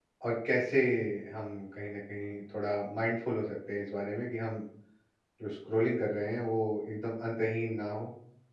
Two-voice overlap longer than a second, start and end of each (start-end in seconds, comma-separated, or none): none